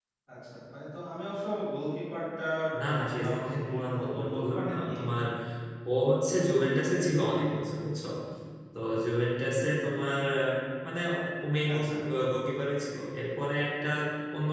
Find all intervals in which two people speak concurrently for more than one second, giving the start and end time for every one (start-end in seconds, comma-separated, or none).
2.8-4.9